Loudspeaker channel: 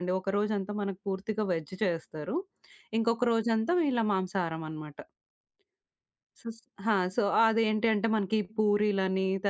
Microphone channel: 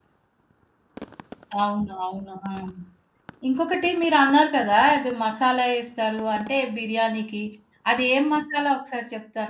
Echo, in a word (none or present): none